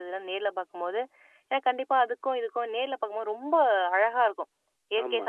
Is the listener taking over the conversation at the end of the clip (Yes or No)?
No